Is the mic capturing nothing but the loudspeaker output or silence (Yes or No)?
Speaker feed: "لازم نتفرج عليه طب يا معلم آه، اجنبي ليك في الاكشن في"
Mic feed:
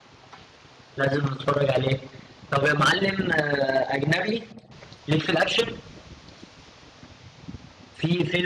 Yes